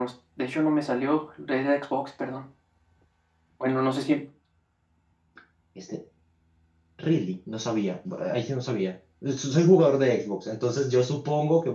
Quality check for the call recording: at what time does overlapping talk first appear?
none

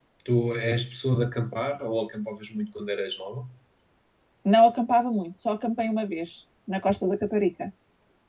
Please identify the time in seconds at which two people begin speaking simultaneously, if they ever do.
none

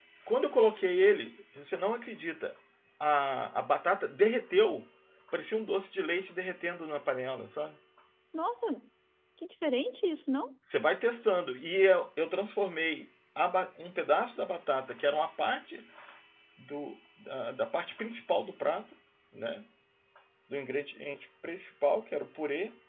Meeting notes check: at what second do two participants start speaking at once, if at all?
none

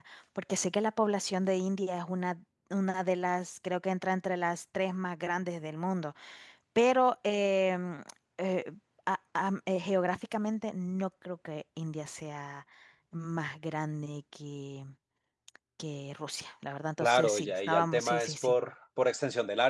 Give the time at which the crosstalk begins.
17.0 s

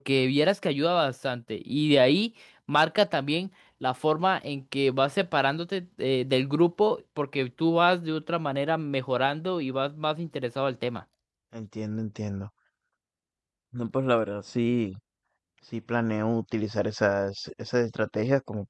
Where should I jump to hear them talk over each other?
none

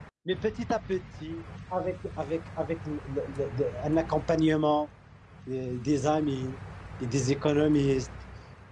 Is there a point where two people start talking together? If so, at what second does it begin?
none

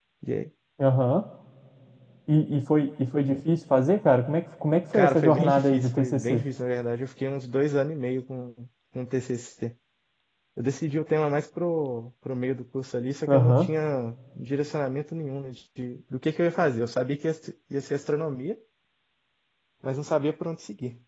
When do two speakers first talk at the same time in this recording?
4.9 s

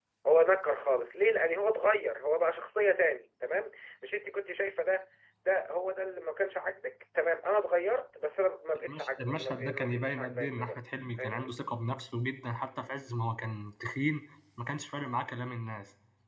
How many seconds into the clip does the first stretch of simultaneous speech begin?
8.7 s

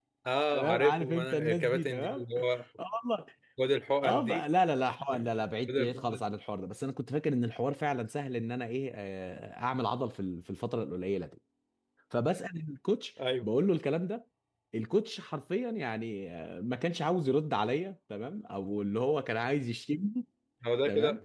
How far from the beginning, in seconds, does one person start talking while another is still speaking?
0.5 s

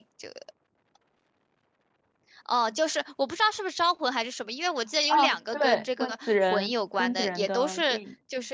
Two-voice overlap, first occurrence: 5.1 s

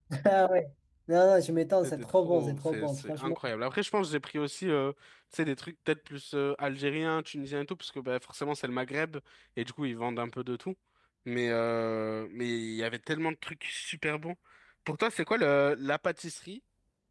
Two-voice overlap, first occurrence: 1.8 s

